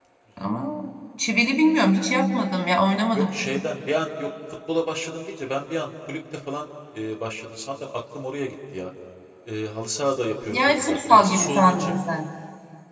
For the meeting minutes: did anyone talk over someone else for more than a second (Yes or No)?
Yes